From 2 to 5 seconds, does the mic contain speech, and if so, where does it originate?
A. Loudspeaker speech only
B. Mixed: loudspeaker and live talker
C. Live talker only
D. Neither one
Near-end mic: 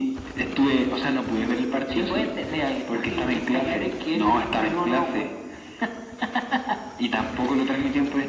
A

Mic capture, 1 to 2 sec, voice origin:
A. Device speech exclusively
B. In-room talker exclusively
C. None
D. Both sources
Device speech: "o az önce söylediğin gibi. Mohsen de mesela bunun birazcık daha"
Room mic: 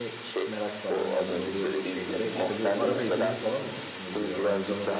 D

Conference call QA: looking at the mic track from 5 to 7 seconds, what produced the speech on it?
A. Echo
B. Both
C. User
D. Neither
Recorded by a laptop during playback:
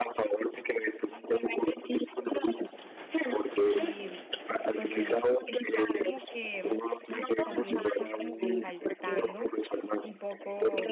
B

